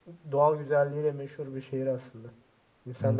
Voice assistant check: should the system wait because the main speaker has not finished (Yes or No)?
No